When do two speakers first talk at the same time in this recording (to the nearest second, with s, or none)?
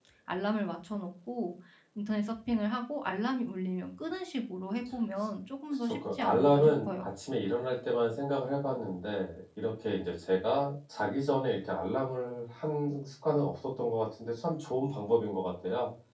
6 s